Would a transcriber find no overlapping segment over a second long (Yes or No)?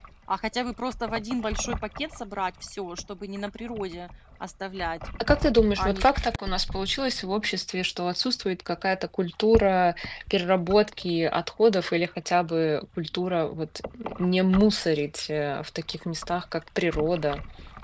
Yes